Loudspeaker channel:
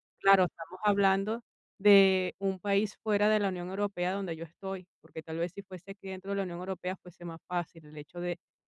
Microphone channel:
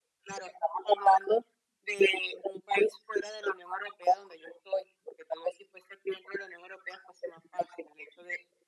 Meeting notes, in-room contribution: none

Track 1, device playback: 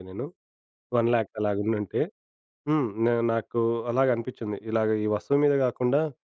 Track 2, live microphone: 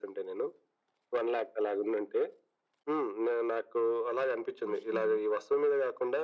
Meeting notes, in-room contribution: present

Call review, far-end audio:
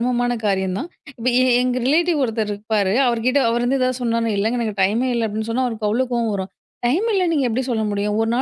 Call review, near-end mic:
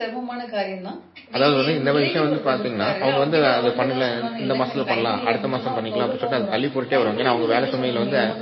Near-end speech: present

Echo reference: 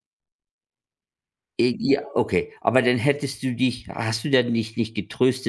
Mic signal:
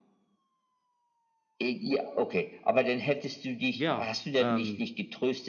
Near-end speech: present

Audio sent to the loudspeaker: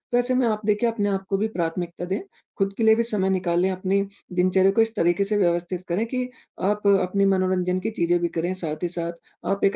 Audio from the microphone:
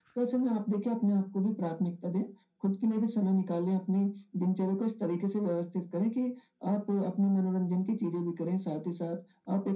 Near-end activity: none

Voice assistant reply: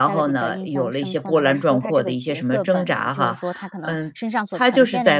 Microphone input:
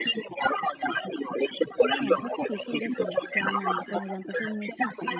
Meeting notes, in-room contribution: present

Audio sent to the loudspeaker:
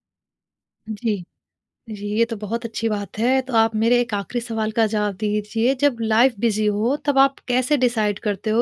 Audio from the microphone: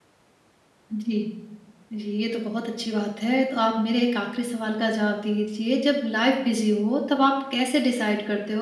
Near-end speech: none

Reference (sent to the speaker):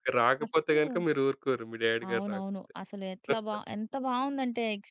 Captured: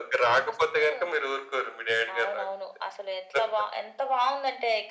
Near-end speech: none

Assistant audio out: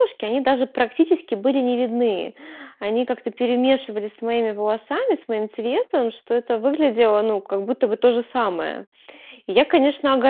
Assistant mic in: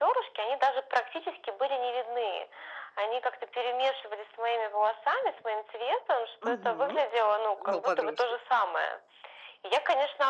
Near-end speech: present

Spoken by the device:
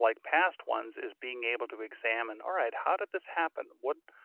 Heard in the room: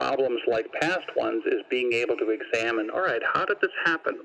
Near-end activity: none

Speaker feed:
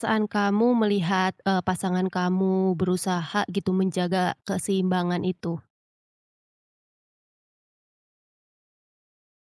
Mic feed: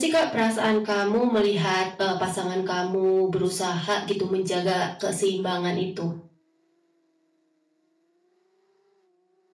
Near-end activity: none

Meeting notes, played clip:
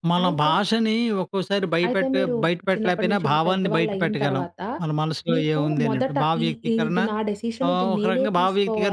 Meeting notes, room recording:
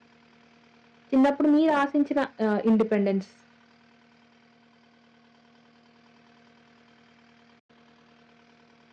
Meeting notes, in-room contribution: present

